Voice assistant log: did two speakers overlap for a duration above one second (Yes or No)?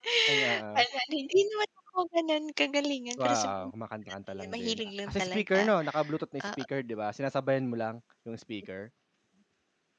Yes